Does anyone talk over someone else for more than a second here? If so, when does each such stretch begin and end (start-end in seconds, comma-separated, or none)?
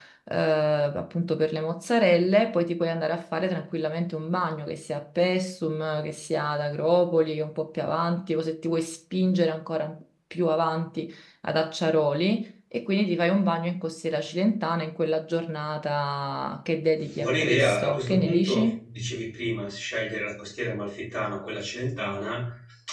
17.2-18.7